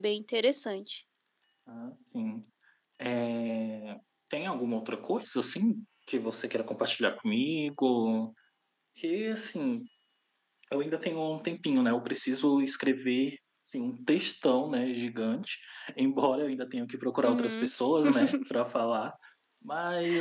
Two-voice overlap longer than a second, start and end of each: none

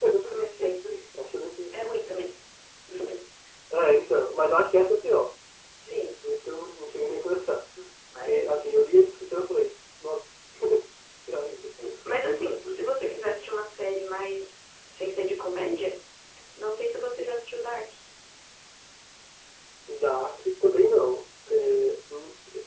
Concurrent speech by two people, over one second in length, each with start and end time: none

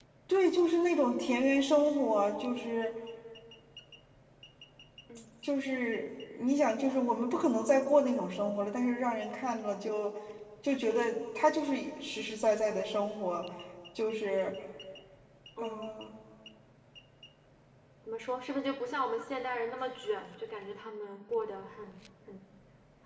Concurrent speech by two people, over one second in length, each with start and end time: none

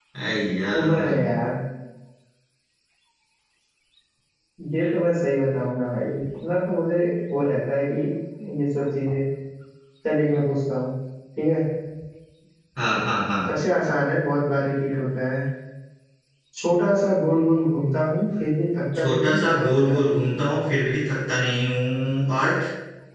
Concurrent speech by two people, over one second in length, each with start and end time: 19.0-20.2

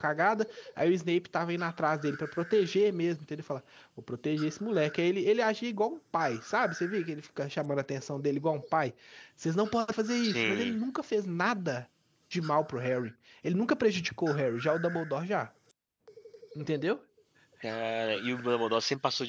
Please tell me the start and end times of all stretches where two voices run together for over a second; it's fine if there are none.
none

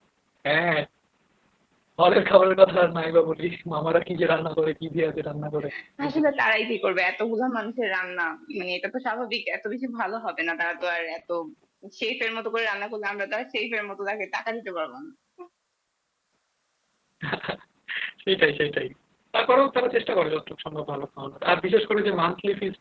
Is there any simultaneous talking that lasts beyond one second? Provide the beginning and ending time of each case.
none

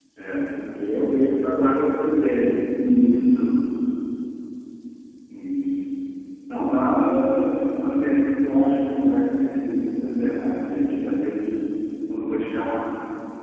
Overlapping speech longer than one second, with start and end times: none

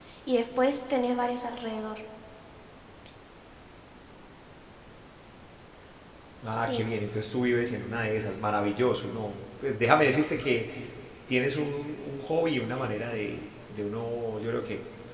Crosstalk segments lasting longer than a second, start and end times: none

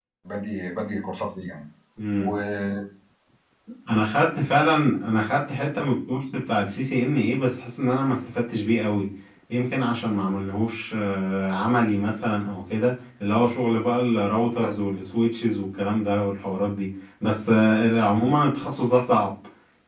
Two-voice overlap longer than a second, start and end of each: none

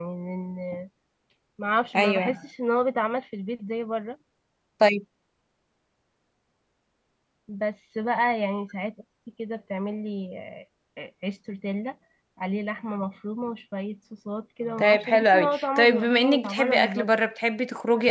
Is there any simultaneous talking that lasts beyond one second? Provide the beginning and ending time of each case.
14.8-17.1

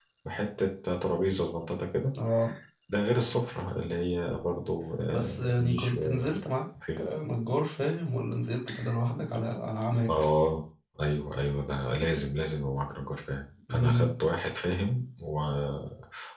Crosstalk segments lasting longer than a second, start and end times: 5.1-6.4

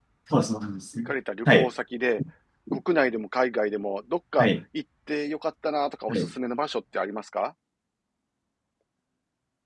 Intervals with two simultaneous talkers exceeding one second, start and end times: none

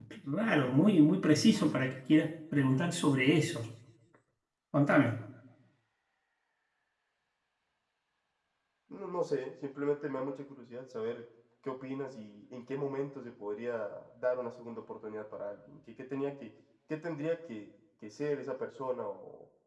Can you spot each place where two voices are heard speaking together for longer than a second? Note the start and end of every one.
none

